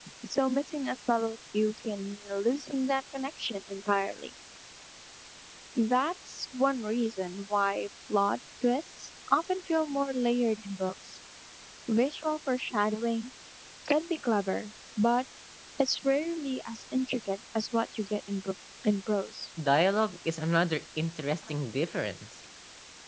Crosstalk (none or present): none